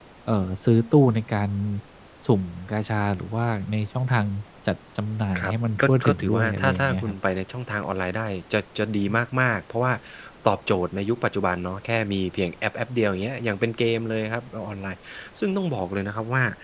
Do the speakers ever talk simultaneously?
Yes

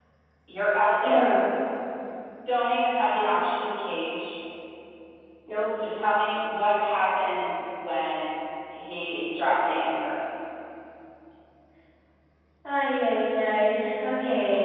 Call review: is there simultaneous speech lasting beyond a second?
No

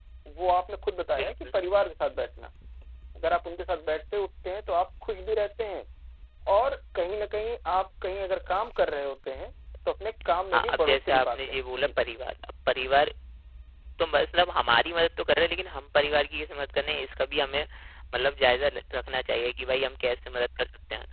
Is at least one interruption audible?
Yes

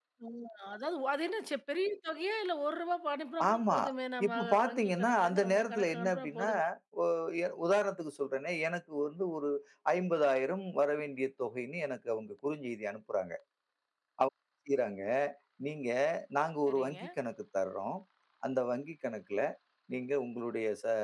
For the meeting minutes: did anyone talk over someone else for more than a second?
Yes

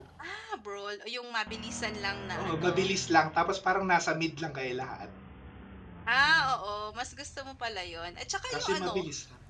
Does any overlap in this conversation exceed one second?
No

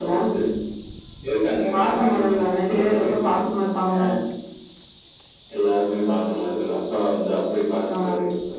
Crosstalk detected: Yes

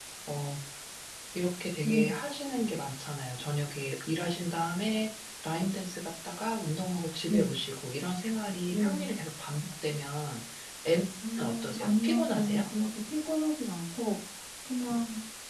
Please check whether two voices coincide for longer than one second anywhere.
Yes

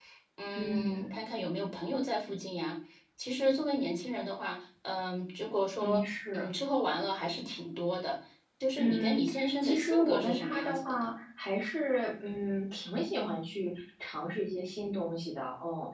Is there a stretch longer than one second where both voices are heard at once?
Yes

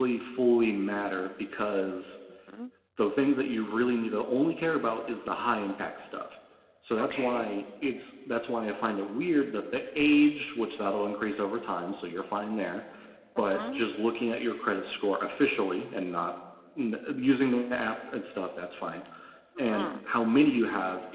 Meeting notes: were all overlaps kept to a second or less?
Yes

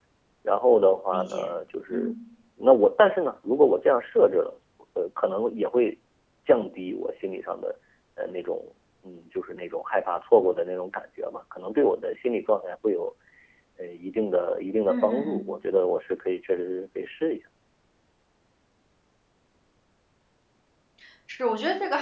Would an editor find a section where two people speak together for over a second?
No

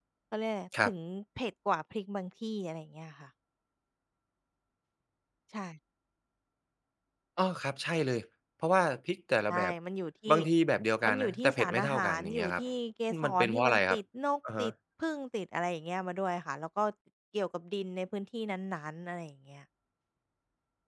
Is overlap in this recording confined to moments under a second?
No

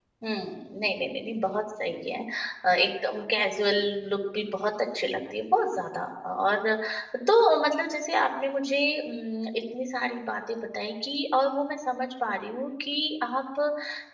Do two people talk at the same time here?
No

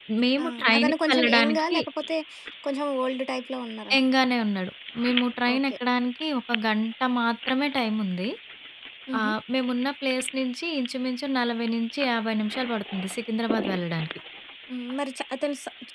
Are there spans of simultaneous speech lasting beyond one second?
Yes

